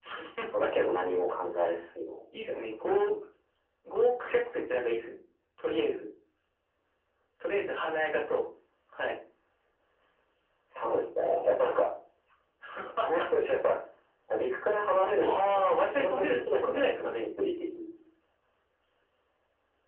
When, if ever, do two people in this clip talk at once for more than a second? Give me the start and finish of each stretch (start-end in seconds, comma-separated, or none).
15.2-17.1